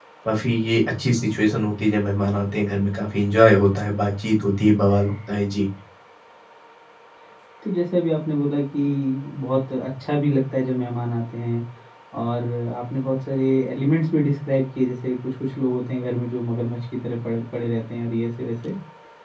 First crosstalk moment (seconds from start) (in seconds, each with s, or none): none